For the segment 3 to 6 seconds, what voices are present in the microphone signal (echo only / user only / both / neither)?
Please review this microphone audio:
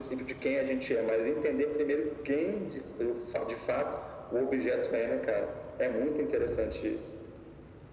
echo only